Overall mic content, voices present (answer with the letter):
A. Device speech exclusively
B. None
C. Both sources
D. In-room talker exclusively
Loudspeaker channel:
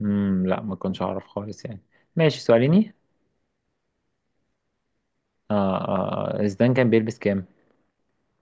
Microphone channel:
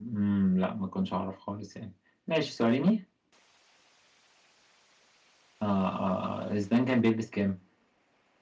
A